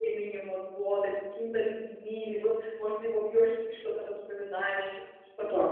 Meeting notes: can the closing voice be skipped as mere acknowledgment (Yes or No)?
No